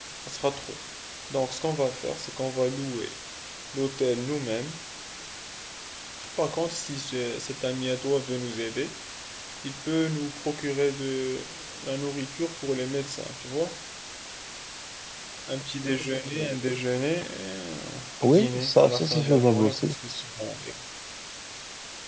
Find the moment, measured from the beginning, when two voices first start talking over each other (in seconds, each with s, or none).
18.2 s